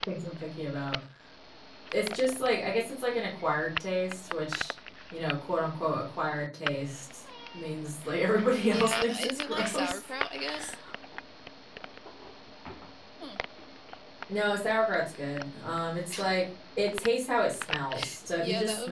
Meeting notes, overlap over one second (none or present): present